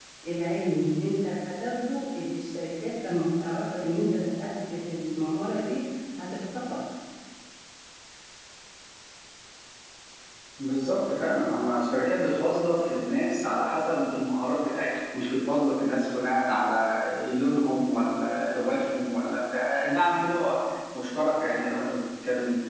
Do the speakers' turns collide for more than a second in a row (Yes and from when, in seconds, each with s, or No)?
No